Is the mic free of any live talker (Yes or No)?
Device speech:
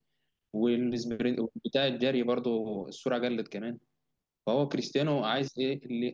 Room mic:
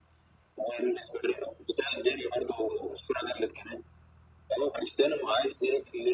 Yes